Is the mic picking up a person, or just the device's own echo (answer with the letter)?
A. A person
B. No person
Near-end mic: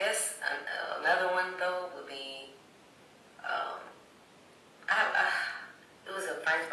B